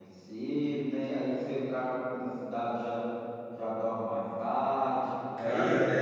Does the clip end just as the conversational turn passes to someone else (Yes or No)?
Yes